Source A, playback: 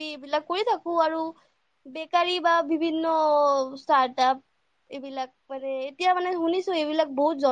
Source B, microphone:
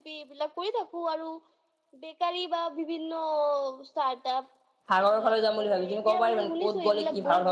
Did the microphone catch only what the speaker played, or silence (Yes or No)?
No